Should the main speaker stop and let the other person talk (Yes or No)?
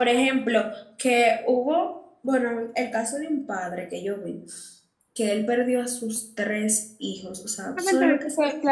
Yes